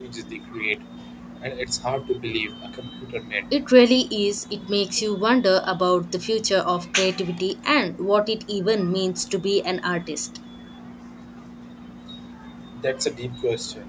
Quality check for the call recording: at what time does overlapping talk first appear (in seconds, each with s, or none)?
none